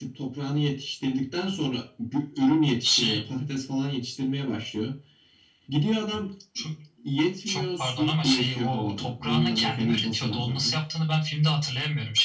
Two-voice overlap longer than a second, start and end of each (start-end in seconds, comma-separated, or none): 7.5-10.8